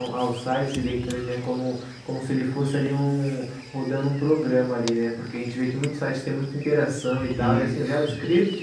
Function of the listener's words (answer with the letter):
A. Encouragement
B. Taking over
A